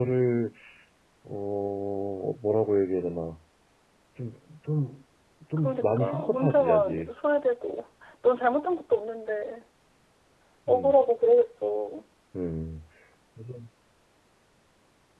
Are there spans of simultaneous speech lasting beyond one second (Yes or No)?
Yes